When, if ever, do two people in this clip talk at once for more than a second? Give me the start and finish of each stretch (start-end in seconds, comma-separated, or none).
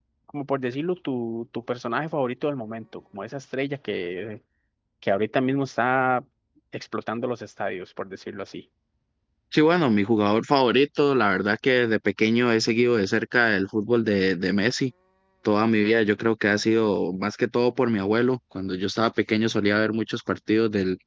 none